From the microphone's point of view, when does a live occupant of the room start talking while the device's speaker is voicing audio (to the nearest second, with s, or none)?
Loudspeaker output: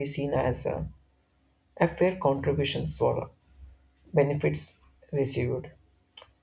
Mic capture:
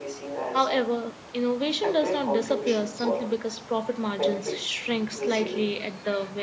1 s